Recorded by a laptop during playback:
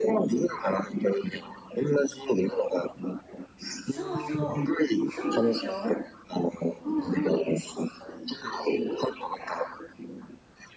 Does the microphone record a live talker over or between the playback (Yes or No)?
Yes